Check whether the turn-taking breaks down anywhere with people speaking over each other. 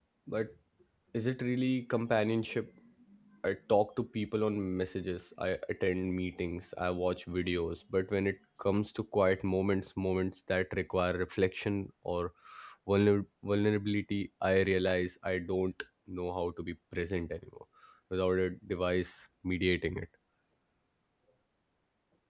No

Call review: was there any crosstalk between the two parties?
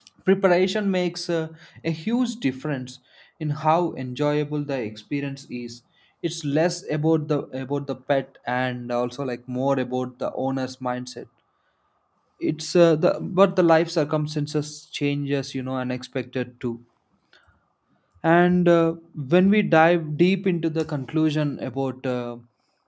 No

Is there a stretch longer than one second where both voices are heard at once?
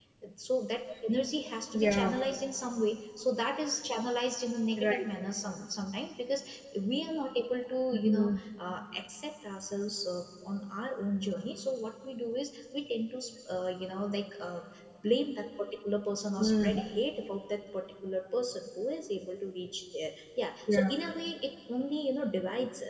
No

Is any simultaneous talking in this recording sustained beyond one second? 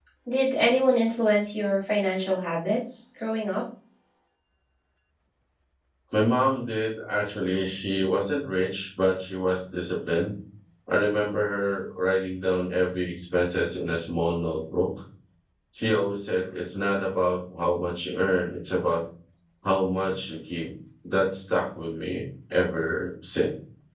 No

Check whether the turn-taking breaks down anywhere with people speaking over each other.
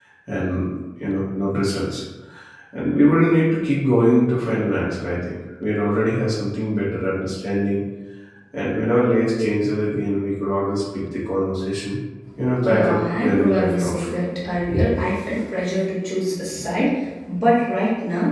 Yes, from 12.6 s

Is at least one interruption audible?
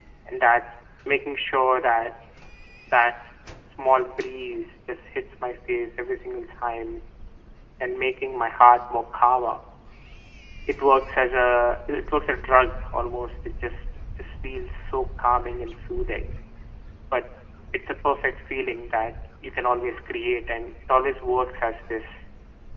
No

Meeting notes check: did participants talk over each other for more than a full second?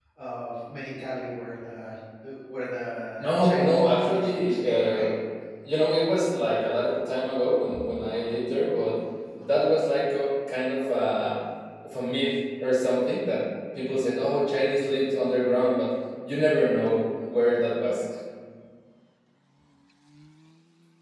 Yes, from 3.2 s

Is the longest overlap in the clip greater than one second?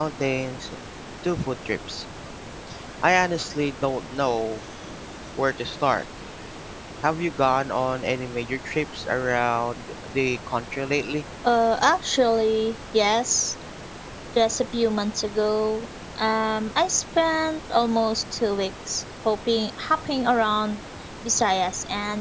No

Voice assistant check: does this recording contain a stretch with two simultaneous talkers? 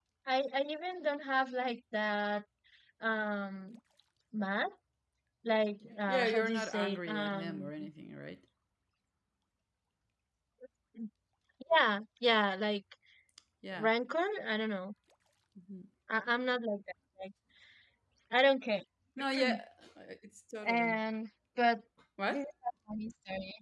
Yes, from 6.1 s

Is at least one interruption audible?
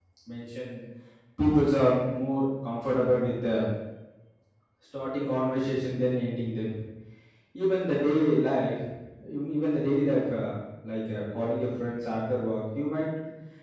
No

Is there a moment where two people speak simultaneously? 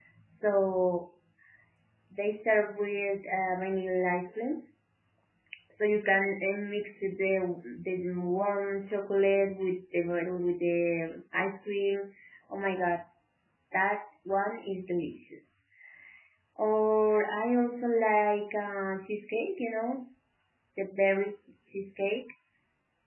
No

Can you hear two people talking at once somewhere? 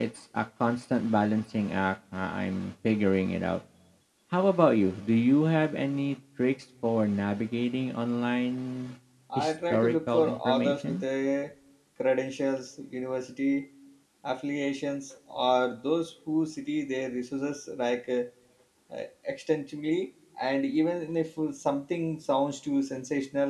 Yes, from 9.4 s

